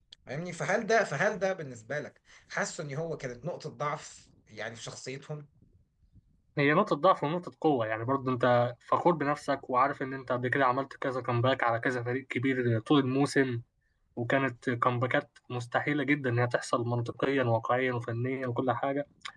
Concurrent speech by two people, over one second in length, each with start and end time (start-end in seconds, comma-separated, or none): none